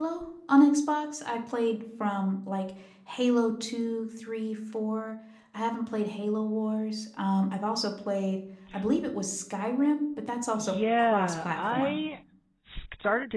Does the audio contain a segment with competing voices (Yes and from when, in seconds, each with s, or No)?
Yes, from 10.6 s